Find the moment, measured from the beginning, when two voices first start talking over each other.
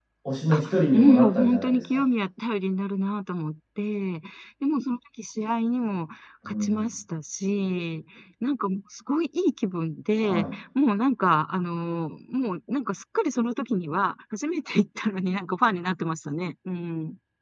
1 s

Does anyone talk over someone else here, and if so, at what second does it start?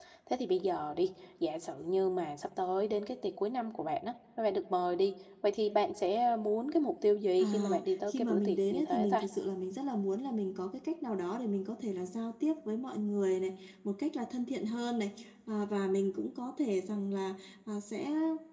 7 s

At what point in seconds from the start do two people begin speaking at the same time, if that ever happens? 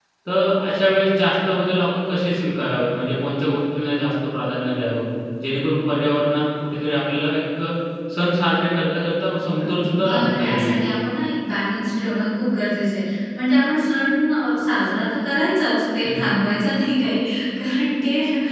9 s

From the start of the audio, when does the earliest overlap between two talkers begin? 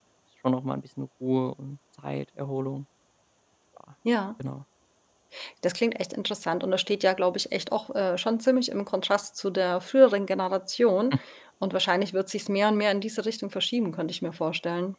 none

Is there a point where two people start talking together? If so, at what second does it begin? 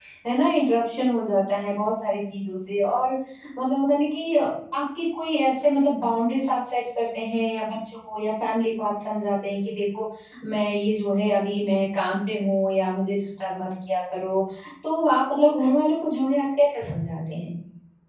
none

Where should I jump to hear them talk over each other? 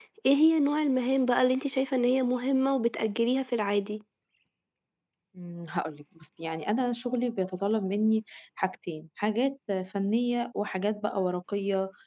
none

